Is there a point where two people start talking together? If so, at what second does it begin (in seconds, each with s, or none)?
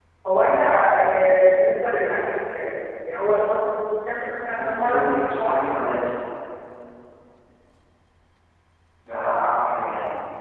4.5 s